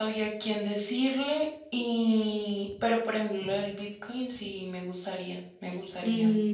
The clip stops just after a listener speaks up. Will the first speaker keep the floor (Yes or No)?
No